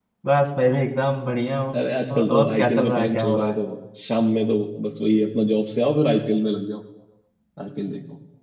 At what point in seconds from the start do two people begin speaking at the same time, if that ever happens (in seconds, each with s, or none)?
2.2 s